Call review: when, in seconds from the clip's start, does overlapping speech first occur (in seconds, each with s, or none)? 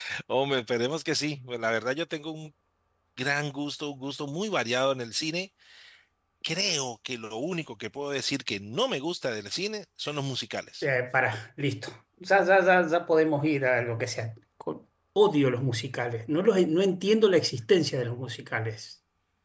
none